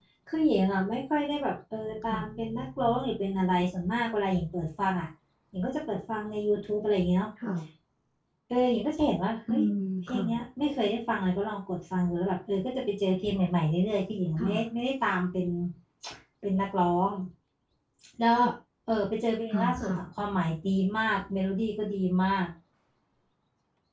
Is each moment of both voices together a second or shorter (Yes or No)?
Yes